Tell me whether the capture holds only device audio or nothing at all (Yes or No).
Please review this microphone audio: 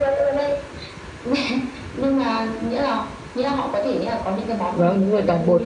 No